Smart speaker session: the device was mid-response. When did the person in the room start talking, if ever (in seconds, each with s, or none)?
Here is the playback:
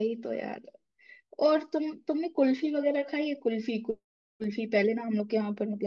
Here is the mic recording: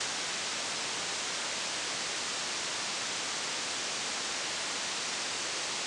none